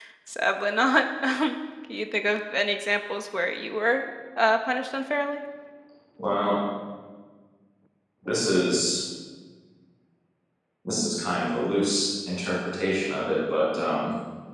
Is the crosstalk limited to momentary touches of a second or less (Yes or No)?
Yes